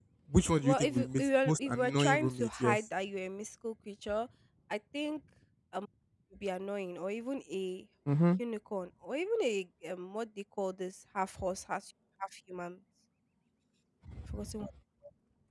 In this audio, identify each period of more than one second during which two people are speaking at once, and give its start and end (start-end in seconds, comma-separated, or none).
0.6-2.8